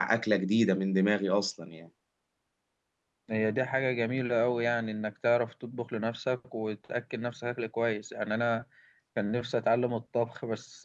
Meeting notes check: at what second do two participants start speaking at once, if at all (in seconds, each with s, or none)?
none